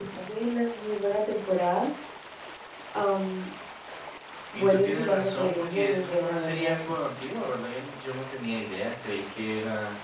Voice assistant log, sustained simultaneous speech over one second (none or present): present